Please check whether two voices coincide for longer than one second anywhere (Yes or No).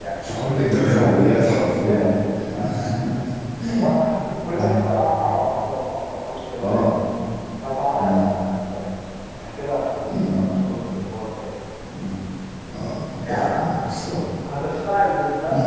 Yes